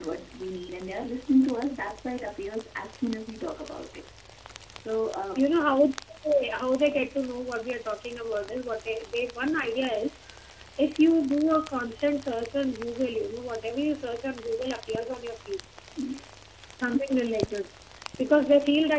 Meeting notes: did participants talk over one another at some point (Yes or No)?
No